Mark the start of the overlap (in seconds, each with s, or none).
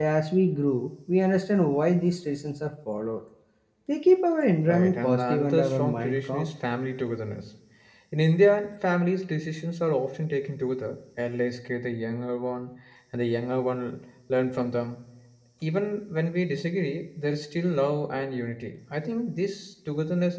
4.7 s